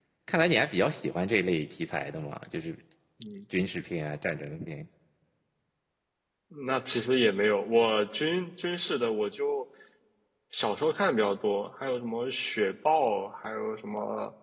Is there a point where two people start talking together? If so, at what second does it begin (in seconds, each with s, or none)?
none